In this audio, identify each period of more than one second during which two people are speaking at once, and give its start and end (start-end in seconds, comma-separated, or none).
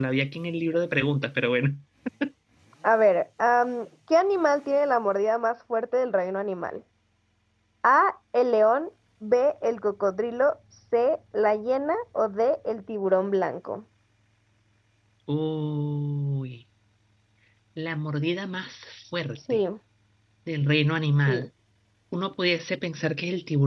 none